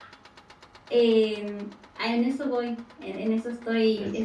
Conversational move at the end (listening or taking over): listening